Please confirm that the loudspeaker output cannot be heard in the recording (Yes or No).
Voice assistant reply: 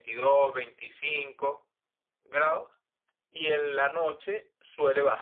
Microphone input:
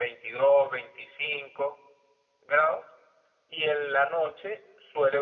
No